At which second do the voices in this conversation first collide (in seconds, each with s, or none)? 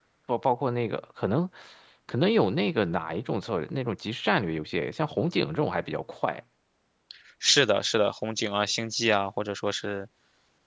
none